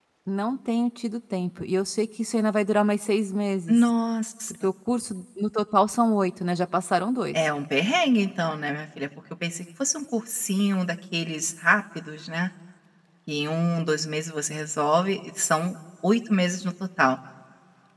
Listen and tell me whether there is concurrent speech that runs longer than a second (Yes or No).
No